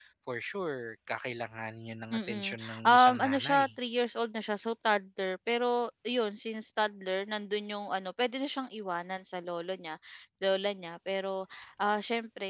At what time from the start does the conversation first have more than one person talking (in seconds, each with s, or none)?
2.1 s